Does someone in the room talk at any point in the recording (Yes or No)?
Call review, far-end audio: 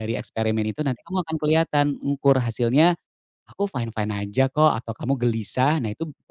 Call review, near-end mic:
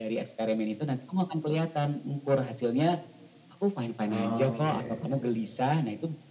Yes